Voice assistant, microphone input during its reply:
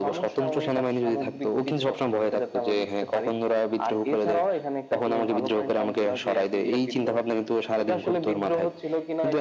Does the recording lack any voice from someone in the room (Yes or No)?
Yes